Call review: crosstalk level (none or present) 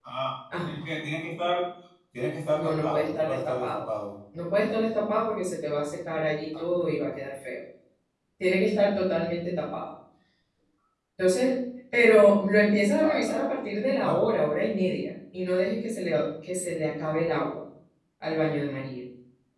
present